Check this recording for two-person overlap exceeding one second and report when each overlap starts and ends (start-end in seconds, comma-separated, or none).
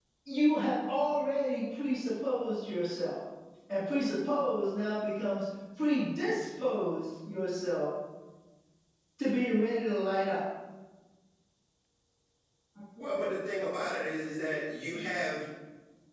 none